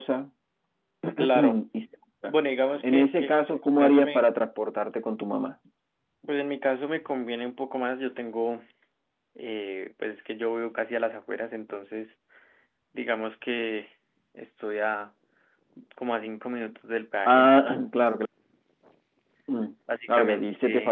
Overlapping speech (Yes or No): Yes